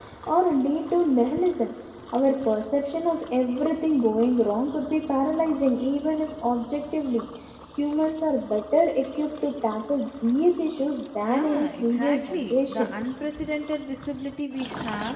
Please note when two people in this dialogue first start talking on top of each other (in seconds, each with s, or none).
11.2 s